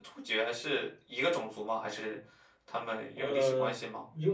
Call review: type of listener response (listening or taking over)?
taking over